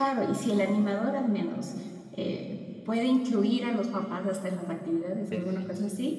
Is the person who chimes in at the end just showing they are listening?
Yes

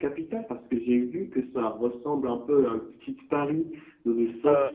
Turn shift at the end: No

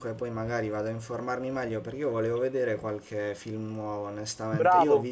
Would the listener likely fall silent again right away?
Yes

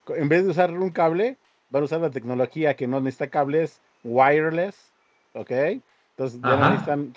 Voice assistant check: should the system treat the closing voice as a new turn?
No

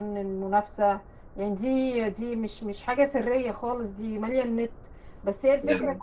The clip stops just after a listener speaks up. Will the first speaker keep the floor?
Yes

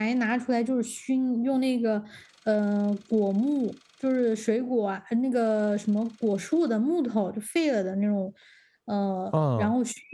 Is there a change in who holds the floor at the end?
No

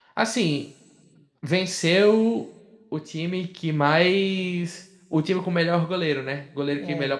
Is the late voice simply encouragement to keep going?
Yes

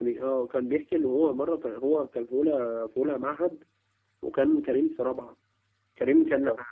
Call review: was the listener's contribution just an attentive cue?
Yes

